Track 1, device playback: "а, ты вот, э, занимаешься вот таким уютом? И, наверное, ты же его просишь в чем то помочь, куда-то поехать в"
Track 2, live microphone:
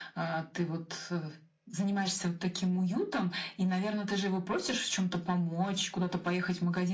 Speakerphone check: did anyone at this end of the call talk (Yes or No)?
No